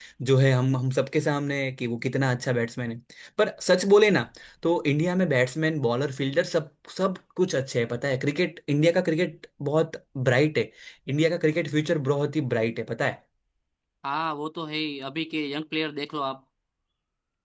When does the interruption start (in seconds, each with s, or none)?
none